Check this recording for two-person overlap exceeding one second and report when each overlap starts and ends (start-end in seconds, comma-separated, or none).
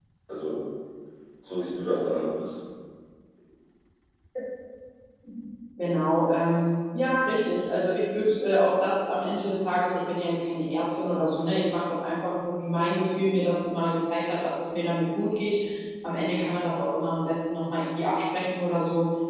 none